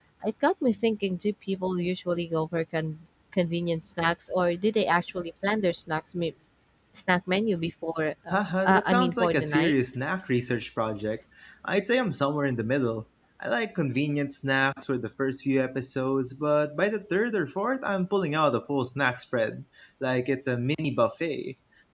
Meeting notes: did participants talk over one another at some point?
Yes, from 8.3 s

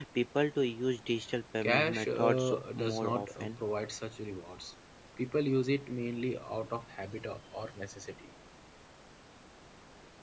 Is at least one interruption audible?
Yes, from 1.6 s

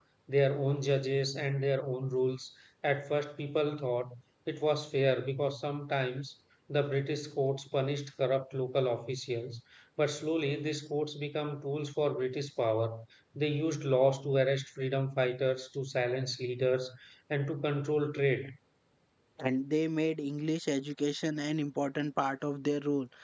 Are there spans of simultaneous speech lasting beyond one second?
No

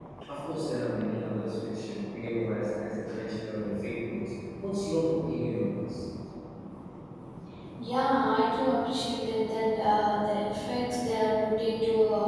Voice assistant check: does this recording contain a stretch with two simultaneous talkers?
No

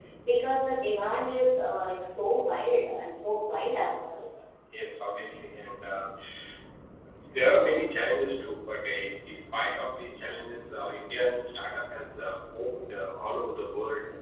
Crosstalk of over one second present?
No

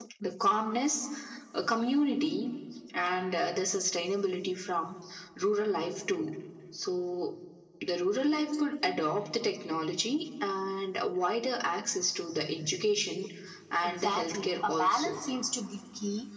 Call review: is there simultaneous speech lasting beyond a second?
Yes, from 13.8 s

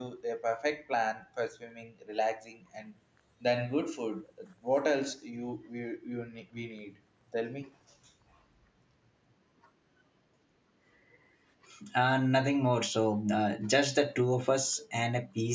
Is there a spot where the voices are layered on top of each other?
No

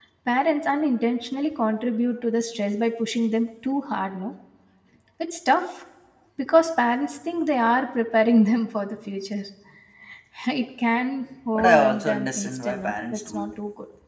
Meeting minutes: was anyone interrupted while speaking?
Yes, from 11.6 s

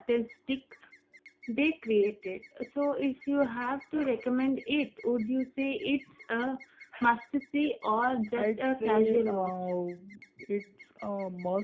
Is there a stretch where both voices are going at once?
Yes, from 8.3 s

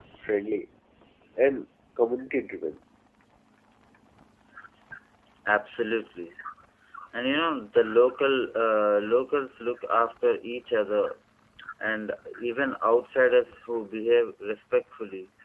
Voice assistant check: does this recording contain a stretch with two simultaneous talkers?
No

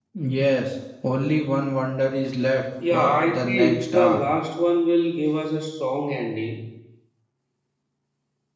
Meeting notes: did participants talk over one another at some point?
Yes, from 2.8 s

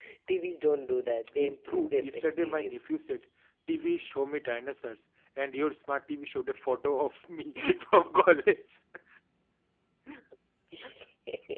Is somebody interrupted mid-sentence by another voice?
Yes, from 1.4 s

